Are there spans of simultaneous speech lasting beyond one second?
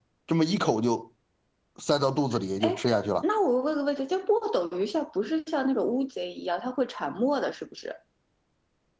No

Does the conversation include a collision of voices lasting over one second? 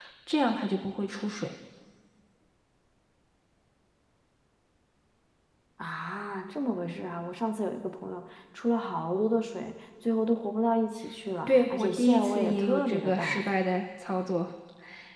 Yes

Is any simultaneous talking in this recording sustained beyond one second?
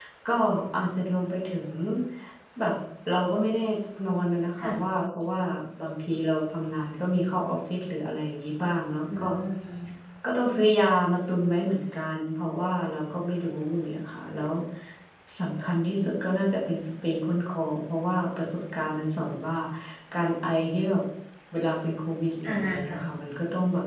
No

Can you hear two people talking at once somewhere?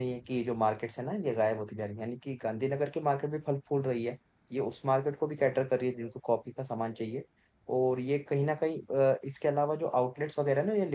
No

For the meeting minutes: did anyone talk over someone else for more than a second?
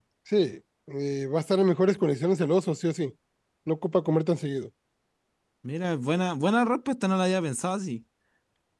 No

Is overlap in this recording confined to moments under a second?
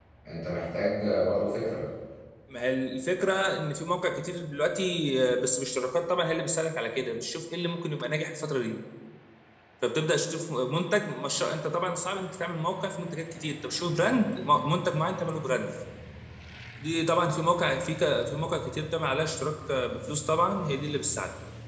Yes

